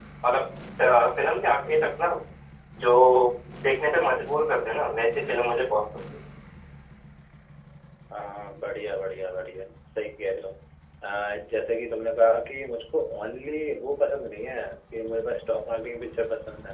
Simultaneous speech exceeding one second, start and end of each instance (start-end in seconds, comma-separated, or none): none